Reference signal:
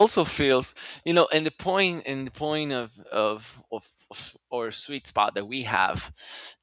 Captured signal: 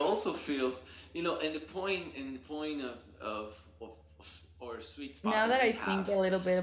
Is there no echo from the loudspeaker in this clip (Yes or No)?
No